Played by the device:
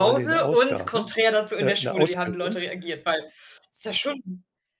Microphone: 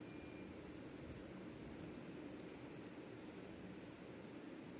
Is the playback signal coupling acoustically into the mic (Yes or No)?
No